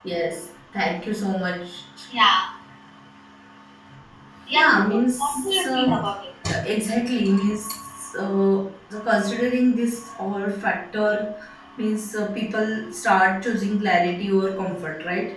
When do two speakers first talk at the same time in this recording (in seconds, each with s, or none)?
4.5 s